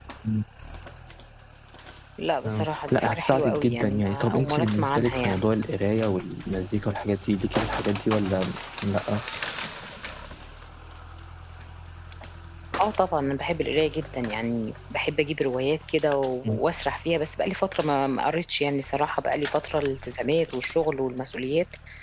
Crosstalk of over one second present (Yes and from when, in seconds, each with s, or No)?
Yes, from 2.4 s